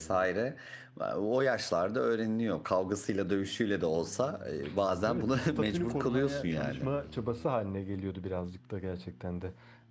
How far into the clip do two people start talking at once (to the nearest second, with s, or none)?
5 s